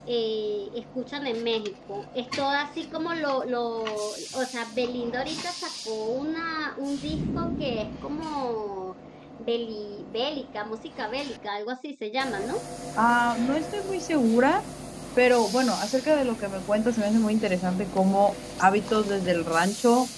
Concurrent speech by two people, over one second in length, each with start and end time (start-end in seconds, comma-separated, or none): none